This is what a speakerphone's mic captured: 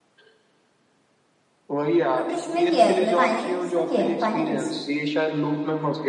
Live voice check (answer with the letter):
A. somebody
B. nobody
A